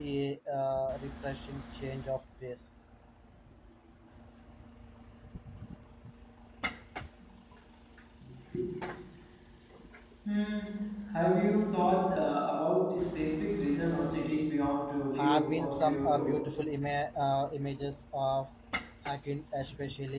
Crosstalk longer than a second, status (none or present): present